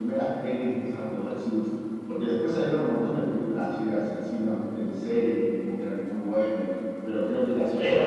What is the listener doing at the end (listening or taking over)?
listening